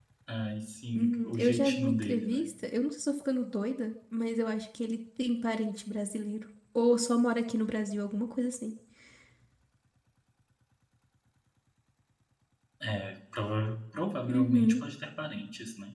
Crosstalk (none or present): present